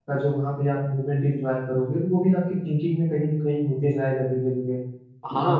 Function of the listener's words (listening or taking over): taking over